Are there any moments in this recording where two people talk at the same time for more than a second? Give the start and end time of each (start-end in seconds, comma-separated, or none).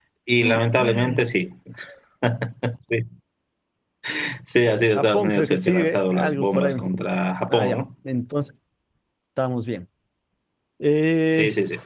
5.0-6.7